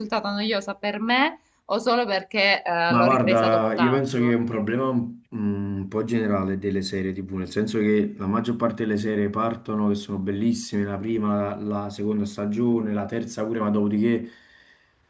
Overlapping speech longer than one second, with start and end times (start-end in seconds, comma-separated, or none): 2.9-4.3